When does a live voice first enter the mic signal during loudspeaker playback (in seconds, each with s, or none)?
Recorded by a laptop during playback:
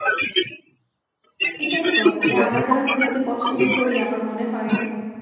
1.6 s